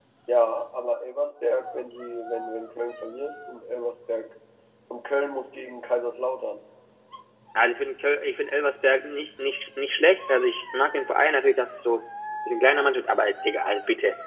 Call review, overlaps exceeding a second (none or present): none